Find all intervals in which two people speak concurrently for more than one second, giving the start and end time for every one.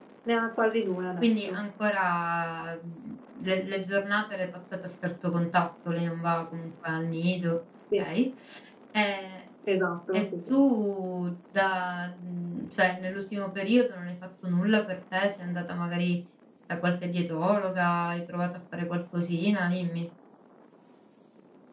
none

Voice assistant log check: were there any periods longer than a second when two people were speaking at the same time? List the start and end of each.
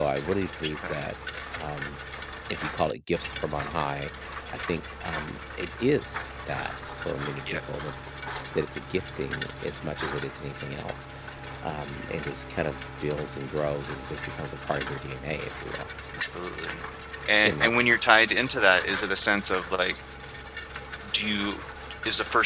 none

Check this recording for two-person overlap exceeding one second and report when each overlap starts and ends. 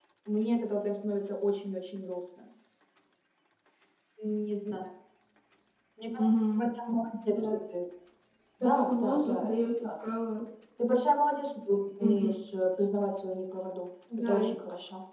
8.6-9.9

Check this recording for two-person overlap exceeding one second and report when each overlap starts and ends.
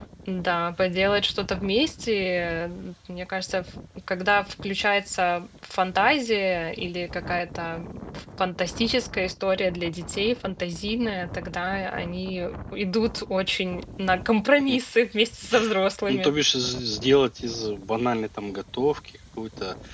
none

